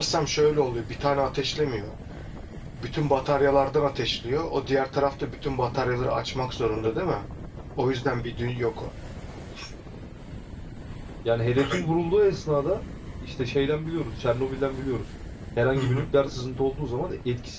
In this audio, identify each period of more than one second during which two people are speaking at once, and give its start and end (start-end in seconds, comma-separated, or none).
none